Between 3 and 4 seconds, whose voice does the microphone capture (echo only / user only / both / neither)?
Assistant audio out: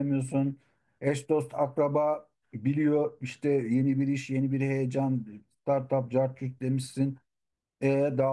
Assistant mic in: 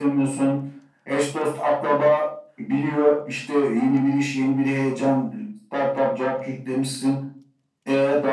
echo only